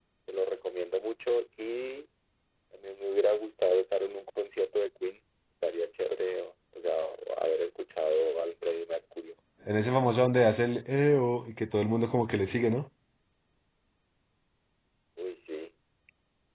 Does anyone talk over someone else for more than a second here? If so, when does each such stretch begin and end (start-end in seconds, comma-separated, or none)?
none